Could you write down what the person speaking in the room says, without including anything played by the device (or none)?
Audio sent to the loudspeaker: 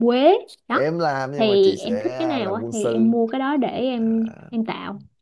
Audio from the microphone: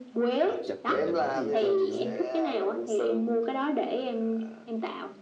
nó đặc trịch rồi nhìn không thấy gì hết trơn kiểu